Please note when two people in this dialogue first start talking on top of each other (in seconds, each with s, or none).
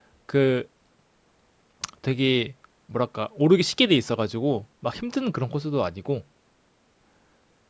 none